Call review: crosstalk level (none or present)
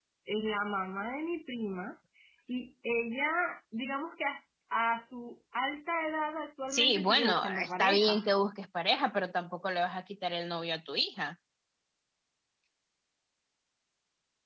present